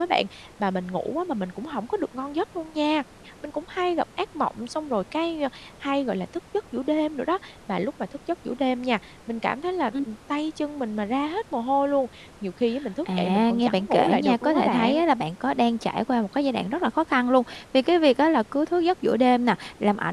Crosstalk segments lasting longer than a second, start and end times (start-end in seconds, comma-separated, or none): 13.2-15.0